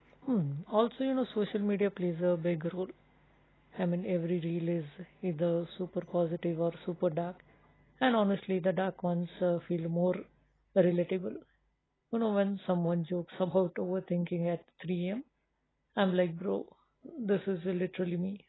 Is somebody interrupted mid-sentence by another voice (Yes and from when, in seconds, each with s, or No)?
No